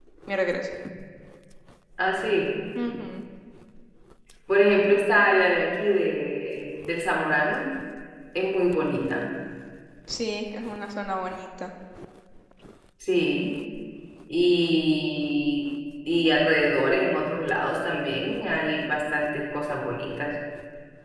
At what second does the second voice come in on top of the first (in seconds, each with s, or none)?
none